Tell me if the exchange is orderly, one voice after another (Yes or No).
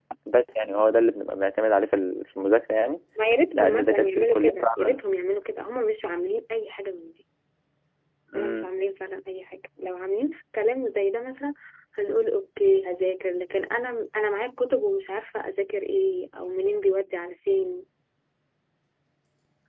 No